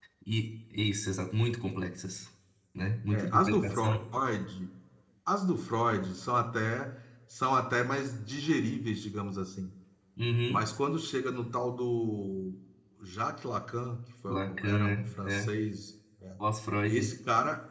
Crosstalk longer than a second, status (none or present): present